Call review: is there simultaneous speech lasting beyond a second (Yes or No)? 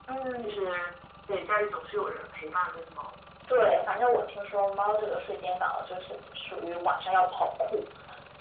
No